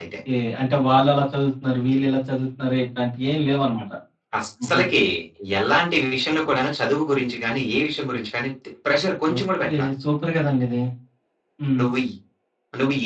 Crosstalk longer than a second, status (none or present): none